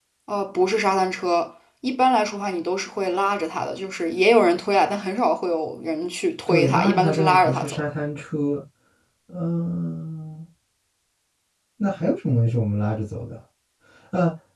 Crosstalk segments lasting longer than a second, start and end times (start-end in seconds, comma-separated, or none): 6.5-7.8